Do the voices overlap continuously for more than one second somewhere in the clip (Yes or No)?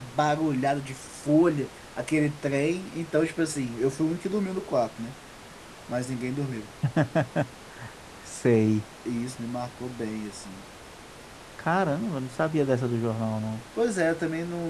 No